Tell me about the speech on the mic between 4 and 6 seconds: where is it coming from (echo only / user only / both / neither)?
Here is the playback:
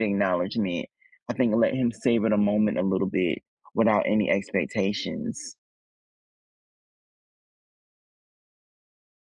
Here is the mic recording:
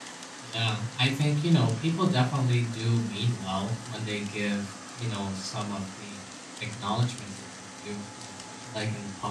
user only